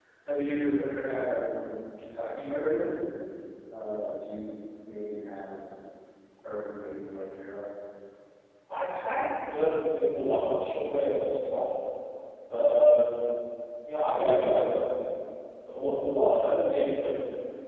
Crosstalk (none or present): none